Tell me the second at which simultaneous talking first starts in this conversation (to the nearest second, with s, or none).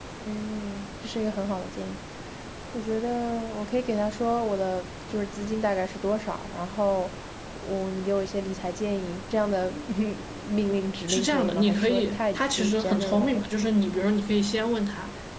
11 s